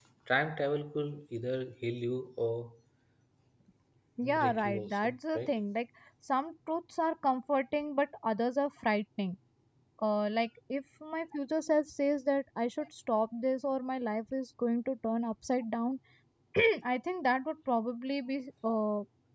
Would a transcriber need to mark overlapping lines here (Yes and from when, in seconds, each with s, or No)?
Yes, from 4.2 s